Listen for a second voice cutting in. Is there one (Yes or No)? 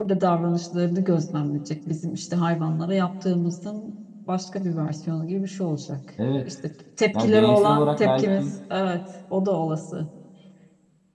Yes